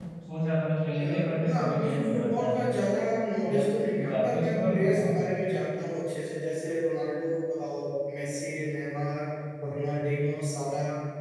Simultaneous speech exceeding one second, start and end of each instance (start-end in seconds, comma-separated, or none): 1.0-2.5, 3.5-5.2